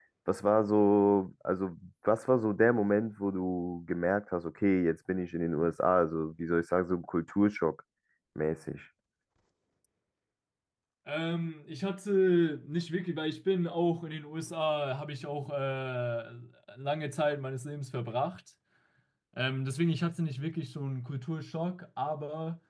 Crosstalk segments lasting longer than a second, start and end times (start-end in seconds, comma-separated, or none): none